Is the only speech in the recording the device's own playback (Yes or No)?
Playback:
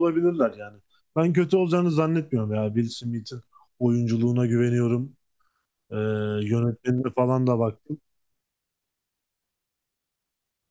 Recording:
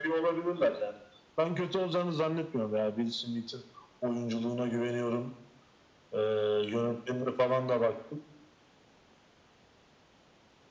Yes